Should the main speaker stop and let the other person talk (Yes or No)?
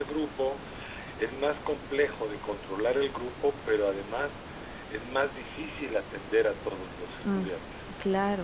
Yes